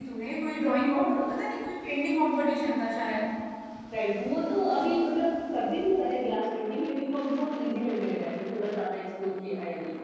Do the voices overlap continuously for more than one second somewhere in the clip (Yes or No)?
No